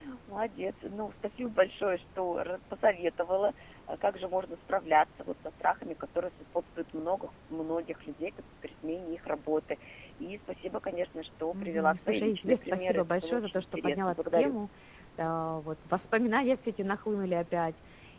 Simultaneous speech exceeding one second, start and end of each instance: 11.5-14.6

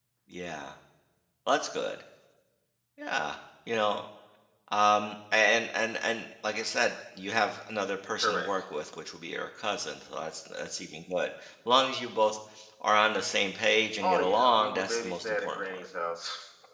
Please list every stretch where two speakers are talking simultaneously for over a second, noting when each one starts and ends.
14.0-15.9

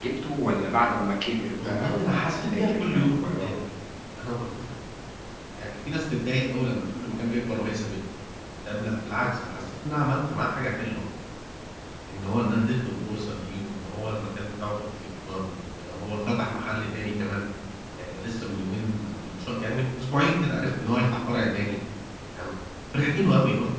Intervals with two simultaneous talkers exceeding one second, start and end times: 1.6-3.5

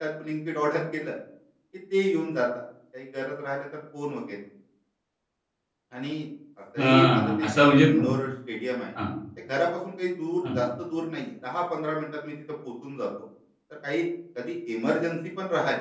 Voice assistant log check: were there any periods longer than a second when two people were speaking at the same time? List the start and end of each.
6.8-8.1

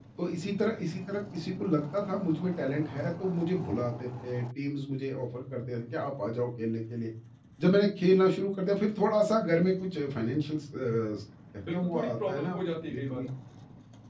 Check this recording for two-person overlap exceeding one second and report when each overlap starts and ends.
11.6-13.3

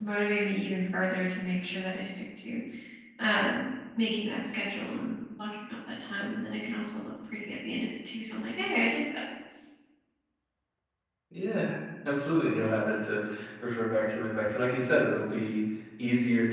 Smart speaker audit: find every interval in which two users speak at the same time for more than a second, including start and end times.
none

